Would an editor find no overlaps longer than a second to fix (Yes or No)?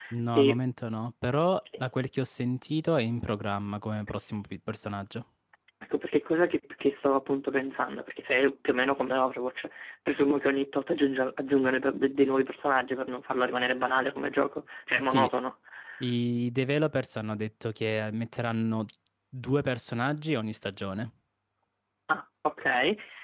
Yes